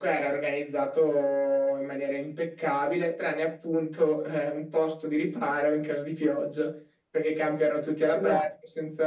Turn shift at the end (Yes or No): No